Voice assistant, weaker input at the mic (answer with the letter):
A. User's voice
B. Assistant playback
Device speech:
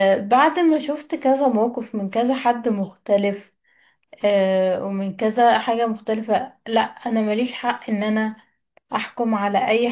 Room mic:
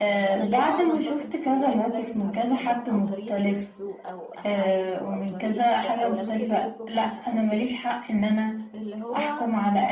A